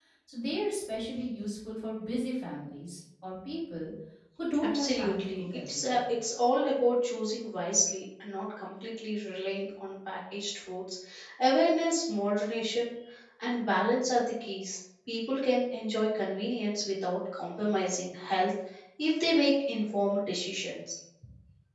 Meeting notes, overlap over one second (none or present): present